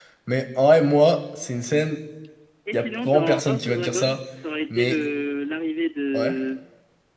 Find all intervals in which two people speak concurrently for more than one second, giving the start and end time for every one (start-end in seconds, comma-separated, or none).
2.7-4.2